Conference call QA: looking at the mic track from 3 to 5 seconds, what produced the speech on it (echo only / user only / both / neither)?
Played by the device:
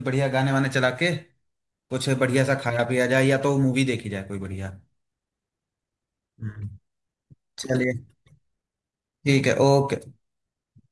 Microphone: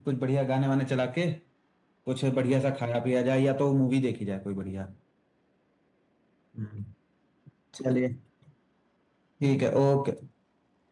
echo only